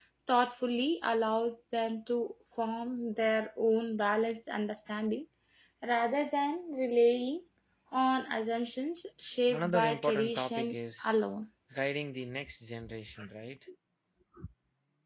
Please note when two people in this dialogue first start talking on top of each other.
9.5 s

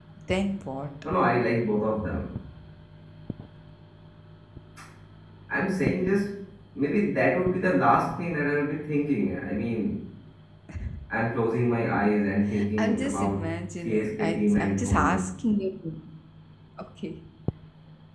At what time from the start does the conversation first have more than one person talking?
12.8 s

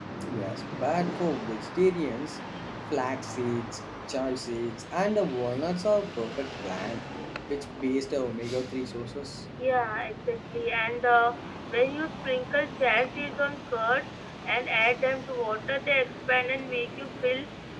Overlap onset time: none

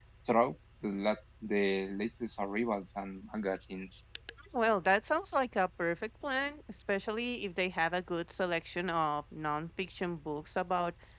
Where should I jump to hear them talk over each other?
none

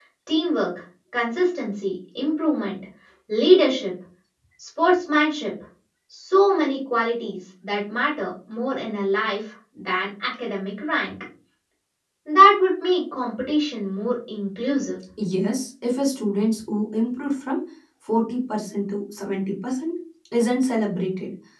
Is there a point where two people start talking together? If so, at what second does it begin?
none

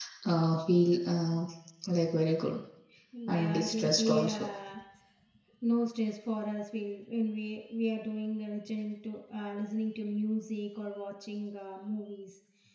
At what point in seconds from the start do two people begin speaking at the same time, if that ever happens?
3.3 s

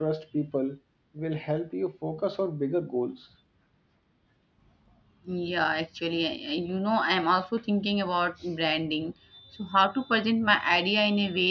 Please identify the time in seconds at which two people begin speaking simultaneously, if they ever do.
none

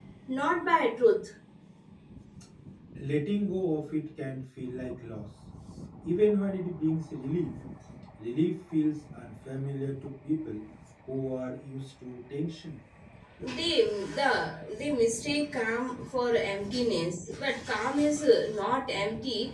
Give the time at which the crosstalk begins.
none

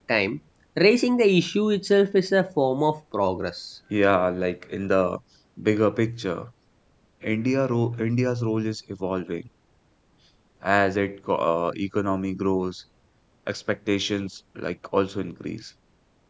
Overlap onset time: none

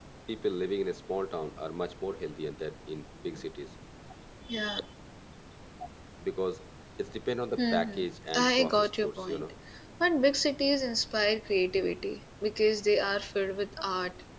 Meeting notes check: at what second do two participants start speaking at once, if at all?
7.6 s

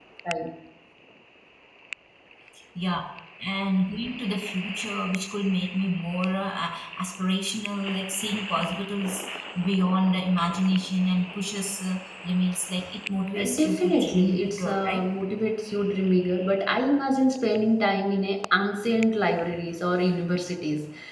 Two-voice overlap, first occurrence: 13.3 s

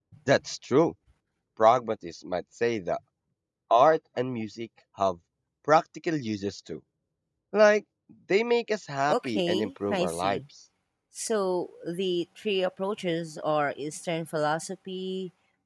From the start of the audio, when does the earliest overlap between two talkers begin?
9.1 s

